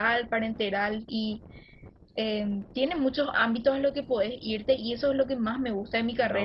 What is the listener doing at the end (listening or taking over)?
listening